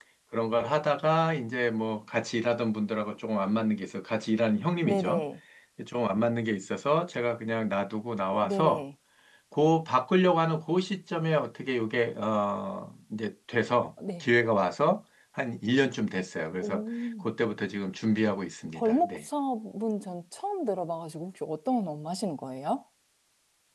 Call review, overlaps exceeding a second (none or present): none